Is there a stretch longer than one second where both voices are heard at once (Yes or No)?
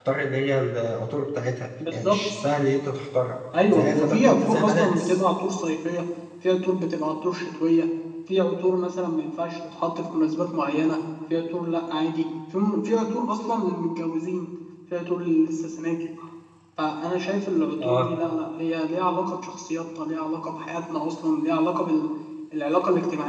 Yes